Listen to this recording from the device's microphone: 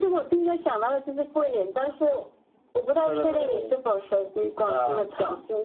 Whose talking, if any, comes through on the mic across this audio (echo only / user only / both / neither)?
echo only